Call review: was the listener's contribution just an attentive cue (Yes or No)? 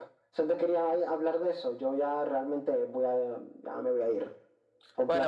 No